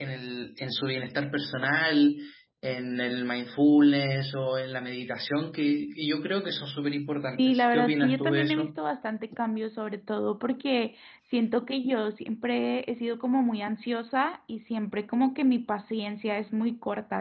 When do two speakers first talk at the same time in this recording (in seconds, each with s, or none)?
7.3 s